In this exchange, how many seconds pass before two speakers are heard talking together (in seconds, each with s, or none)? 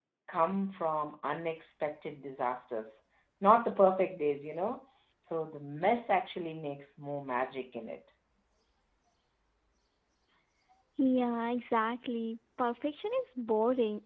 none